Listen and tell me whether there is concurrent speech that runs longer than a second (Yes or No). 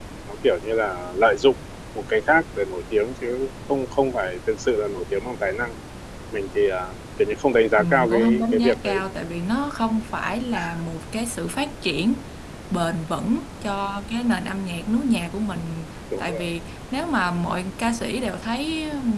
Yes